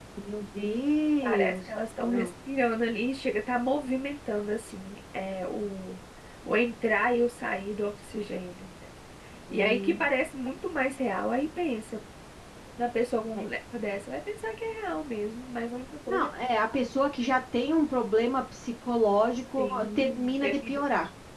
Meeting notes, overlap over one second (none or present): present